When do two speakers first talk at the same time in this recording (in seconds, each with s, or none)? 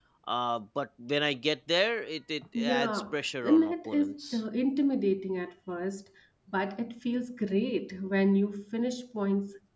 2.5 s